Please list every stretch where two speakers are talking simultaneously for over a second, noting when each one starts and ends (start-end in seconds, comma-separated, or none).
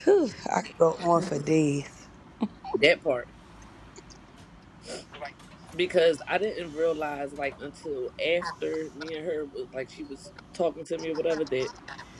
none